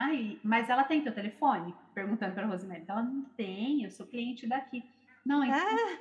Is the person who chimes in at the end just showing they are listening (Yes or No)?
Yes